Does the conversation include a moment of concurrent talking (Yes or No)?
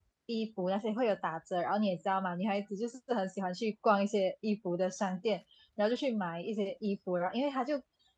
No